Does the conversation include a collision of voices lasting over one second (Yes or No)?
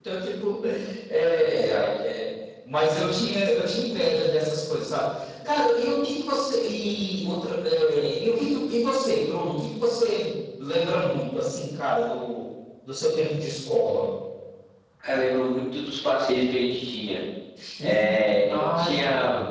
Yes